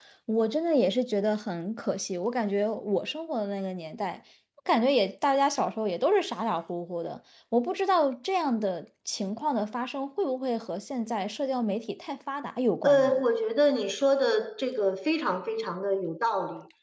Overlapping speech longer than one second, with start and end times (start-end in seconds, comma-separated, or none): none